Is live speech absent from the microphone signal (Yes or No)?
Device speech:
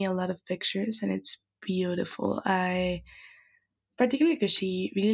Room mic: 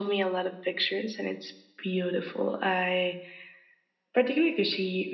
Yes